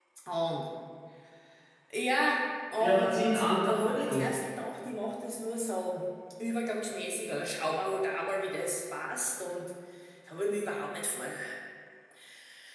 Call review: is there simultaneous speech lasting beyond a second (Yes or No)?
Yes